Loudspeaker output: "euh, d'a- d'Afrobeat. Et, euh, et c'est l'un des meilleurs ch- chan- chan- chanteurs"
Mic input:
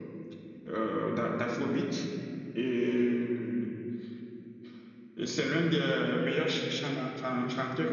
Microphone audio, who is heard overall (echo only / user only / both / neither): echo only